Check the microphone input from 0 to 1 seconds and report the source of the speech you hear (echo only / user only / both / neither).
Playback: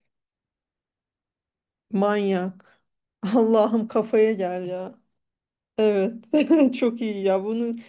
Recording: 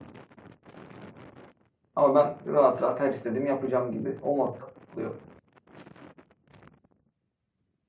neither